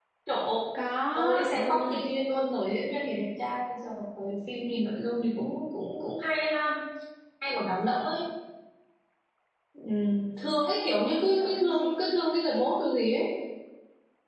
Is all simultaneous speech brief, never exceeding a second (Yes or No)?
No